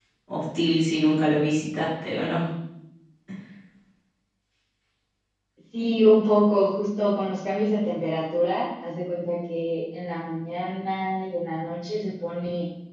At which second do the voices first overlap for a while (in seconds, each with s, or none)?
none